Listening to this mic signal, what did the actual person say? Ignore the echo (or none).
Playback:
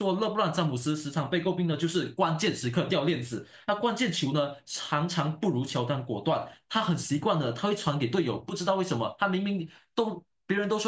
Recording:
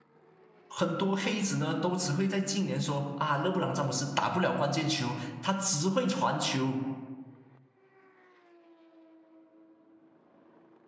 很多黑子呢，都只会在近年说啊，勒布朗詹姆斯打不了关键球，他只会传球。